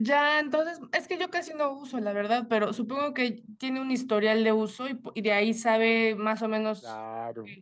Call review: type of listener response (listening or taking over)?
taking over